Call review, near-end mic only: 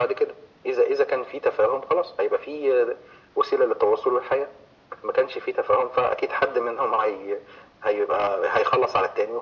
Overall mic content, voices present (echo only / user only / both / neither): echo only